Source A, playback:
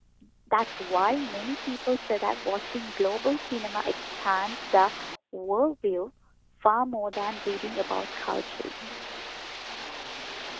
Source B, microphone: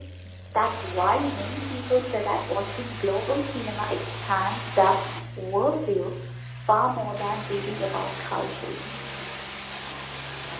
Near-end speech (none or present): none